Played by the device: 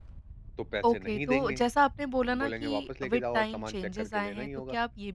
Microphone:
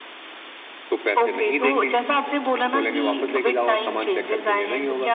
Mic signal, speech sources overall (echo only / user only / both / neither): echo only